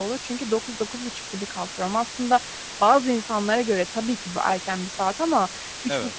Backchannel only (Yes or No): Yes